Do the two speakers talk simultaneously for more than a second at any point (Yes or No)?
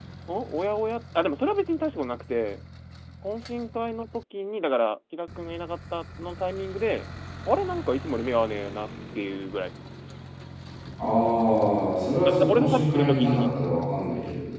Yes